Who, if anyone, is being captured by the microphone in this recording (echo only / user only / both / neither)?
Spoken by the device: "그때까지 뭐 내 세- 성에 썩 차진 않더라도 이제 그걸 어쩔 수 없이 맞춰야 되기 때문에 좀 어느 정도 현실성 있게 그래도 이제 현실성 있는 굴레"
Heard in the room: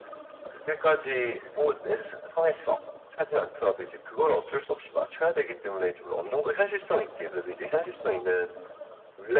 echo only